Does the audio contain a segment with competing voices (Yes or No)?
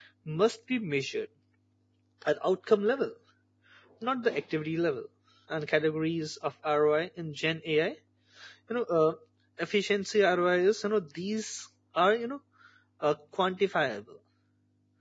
No